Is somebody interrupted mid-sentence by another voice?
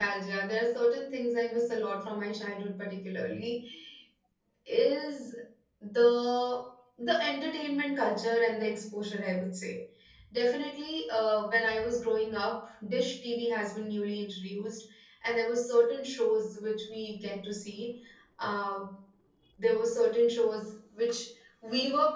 No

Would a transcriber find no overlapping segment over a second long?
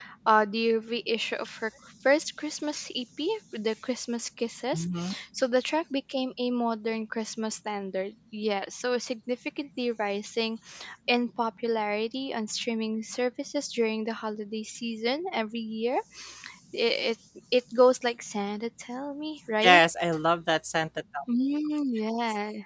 Yes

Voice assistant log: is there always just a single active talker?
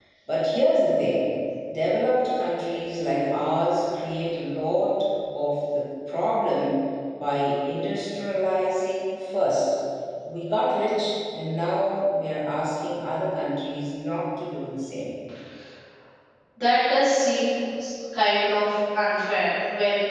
Yes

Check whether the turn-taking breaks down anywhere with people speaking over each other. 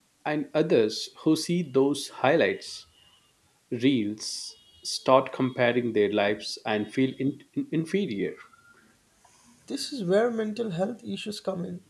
No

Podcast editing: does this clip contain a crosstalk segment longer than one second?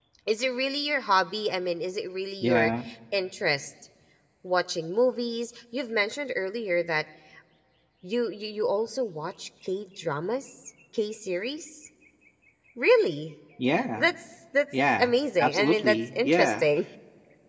Yes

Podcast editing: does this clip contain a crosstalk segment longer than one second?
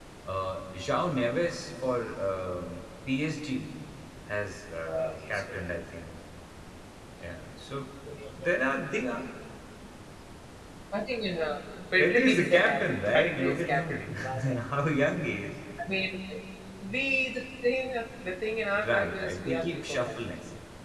Yes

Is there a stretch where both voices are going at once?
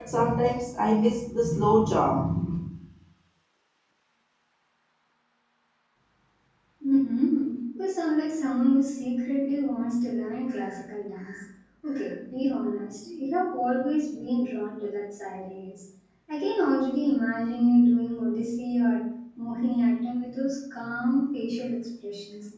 No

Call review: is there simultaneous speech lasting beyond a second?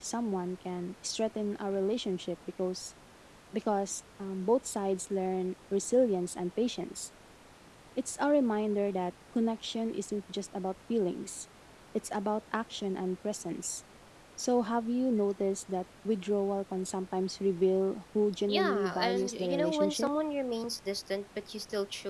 Yes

